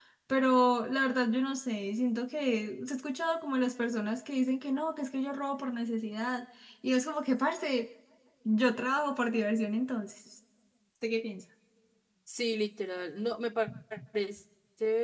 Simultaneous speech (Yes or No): No